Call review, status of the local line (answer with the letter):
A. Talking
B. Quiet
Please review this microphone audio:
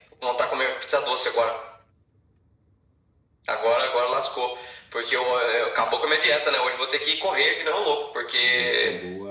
A